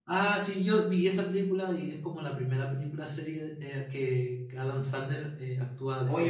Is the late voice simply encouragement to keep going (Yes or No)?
No